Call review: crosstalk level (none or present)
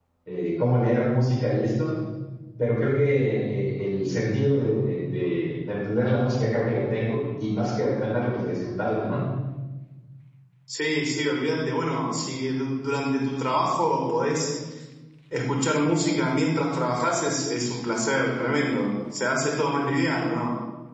none